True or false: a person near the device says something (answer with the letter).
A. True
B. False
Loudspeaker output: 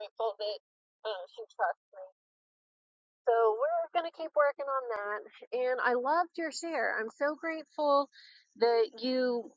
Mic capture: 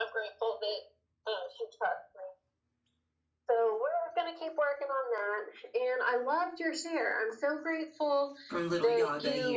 A